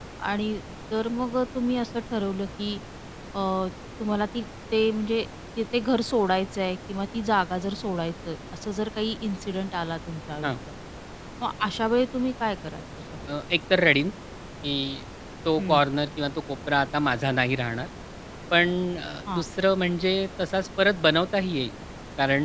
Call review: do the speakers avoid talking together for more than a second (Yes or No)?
Yes